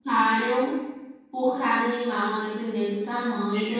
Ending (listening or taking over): taking over